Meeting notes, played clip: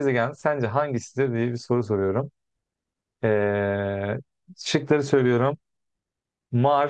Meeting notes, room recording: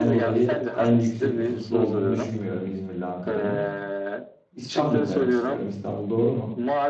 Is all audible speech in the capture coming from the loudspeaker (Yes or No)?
No